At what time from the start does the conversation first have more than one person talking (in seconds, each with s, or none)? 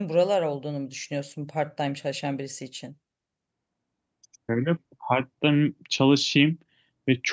none